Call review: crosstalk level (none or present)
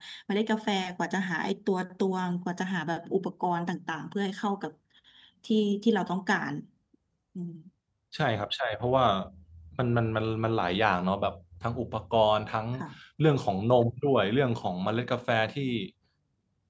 none